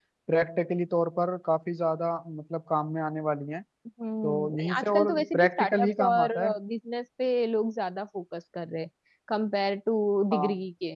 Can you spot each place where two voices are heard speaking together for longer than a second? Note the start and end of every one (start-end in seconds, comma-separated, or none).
4.2-6.3